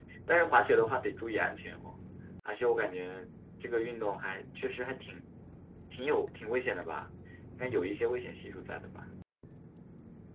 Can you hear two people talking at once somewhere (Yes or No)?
No